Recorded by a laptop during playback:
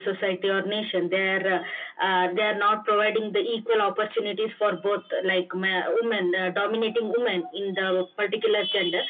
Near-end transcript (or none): none